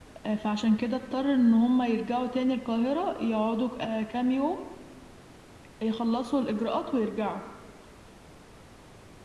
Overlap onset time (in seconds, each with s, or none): none